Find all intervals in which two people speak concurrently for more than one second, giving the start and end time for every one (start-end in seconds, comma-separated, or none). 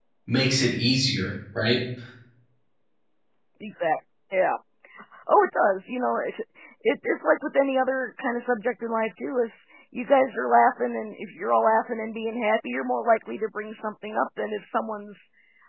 none